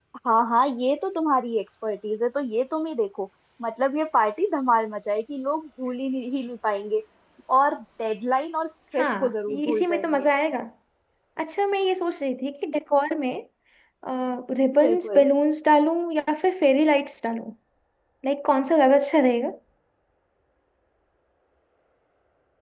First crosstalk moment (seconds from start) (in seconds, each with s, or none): 9.0 s